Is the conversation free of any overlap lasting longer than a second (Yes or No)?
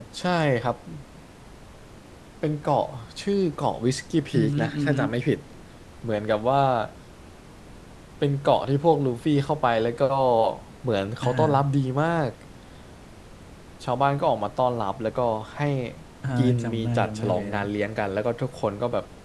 No